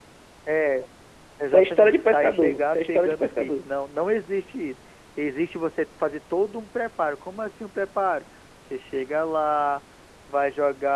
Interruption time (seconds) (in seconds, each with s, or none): 1.4 s